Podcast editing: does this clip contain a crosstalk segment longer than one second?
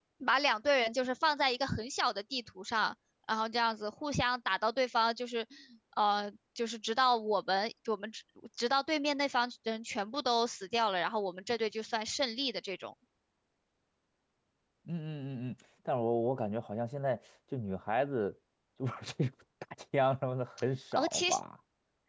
No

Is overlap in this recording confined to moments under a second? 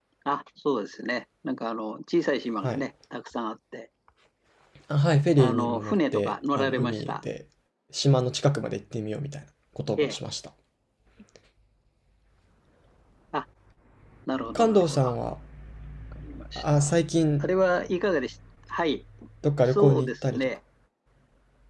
No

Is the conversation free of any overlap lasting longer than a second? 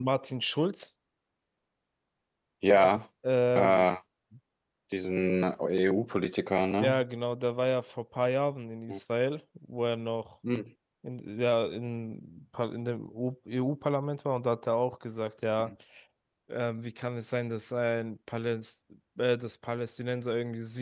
Yes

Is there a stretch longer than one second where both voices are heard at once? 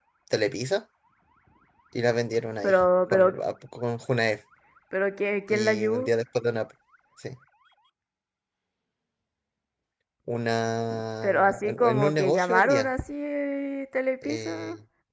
Yes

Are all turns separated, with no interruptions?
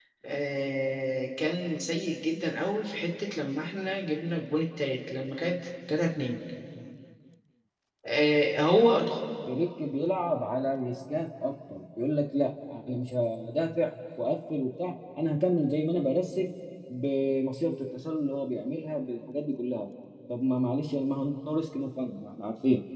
Yes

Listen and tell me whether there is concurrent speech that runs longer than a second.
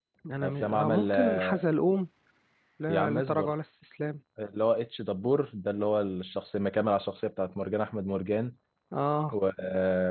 Yes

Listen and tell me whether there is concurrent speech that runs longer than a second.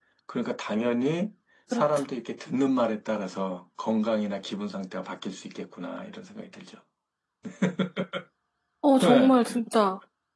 No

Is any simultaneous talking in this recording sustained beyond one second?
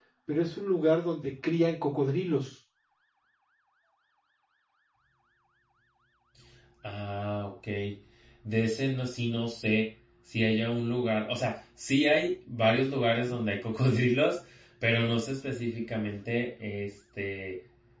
No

